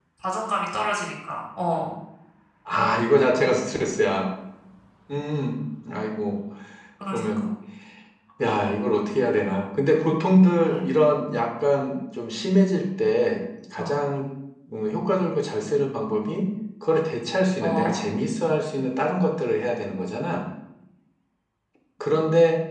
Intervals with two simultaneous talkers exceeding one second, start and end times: none

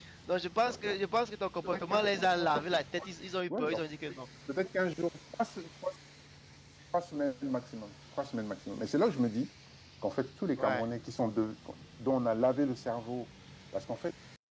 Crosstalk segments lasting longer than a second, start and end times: none

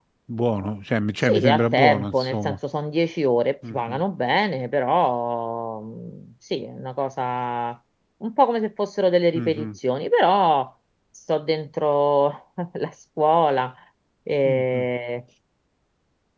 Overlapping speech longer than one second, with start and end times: 1.2-2.6

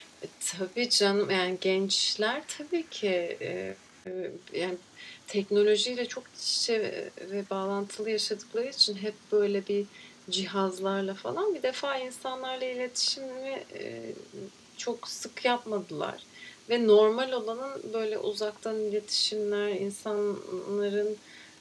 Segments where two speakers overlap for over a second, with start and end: none

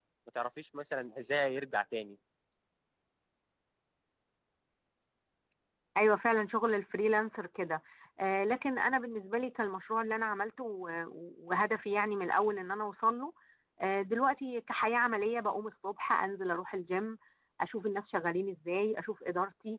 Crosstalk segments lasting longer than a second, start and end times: none

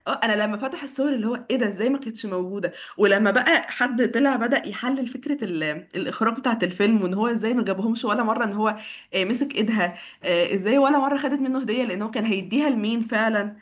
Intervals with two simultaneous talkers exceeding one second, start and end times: none

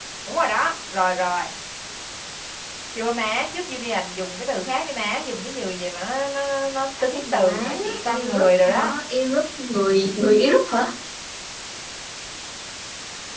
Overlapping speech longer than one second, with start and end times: 7.1-8.9

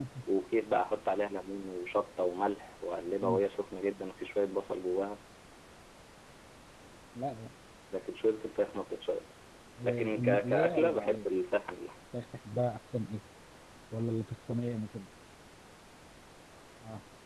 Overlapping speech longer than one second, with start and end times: 9.8-11.2

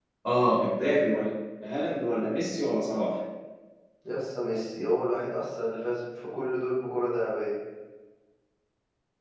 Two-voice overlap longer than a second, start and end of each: none

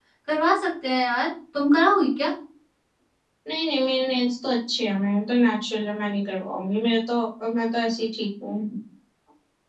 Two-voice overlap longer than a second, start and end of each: none

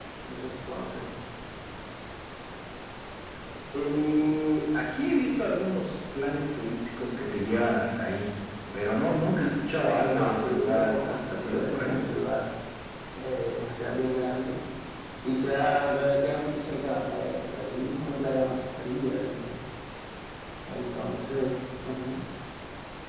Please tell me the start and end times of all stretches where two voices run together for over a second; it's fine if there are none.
10.0-12.0

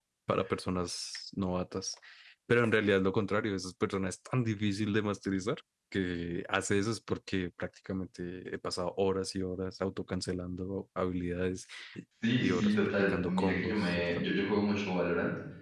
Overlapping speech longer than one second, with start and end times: 12.4-14.1

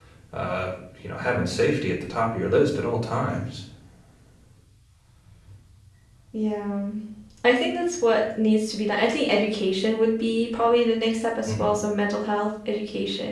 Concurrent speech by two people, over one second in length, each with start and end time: none

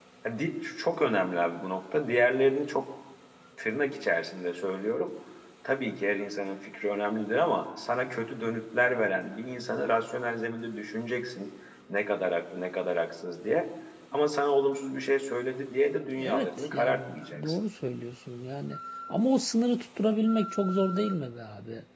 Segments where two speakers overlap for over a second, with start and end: 16.2-17.6

